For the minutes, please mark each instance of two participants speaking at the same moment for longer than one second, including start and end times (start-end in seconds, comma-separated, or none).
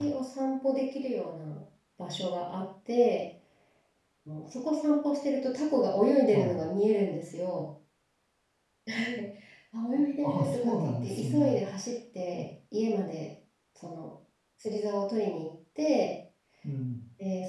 10.2-11.6